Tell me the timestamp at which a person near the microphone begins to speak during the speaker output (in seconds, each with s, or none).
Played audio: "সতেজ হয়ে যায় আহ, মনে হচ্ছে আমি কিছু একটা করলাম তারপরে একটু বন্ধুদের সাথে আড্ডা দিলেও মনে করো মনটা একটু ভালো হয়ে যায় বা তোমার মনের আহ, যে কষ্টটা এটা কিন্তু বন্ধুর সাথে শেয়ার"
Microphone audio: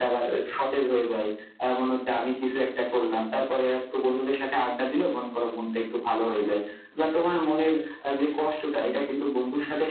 none